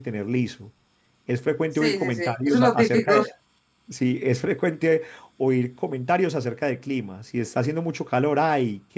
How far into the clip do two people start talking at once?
2 s

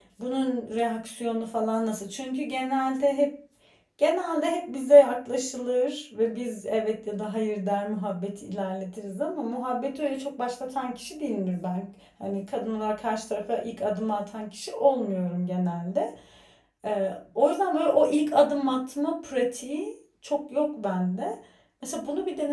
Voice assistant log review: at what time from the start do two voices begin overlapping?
none

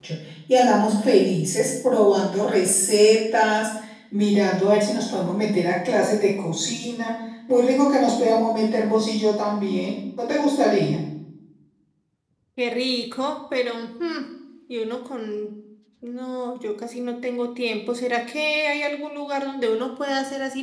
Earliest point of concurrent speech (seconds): none

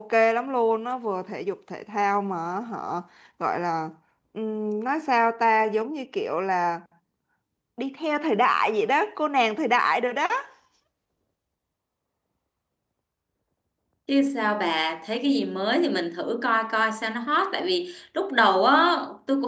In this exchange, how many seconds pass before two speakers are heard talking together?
none

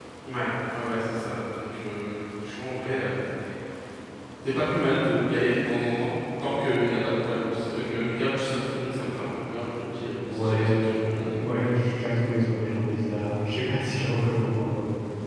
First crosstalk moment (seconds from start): 10 s

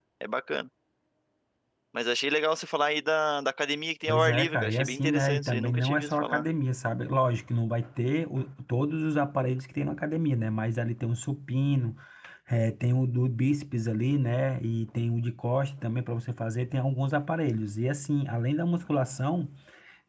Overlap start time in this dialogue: 4 s

